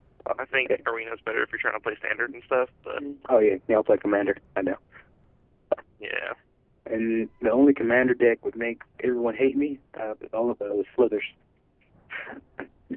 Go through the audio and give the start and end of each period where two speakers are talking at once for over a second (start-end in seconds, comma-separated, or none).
none